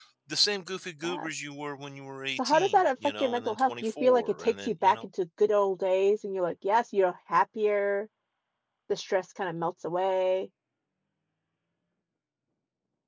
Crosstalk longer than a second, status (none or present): present